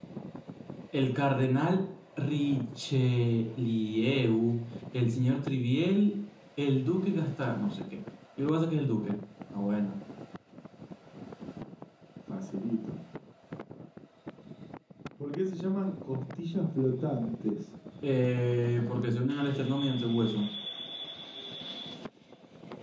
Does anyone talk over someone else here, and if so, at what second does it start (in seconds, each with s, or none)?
none